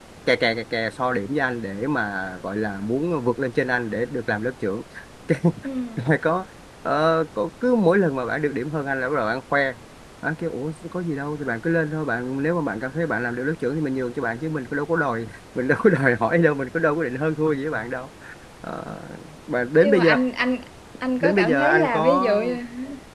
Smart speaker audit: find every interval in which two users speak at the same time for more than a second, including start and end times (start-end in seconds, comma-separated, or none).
21.2-22.4